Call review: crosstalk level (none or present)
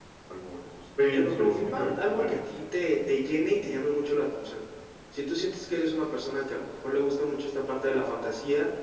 present